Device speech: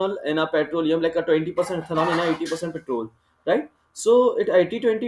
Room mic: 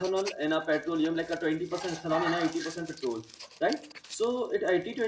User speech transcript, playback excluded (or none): none